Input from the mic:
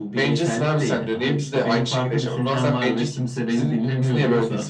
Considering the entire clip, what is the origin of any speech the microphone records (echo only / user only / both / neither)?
echo only